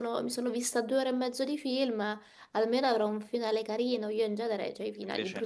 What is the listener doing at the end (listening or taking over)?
listening